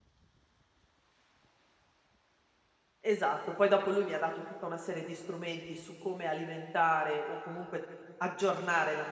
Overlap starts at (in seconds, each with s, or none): none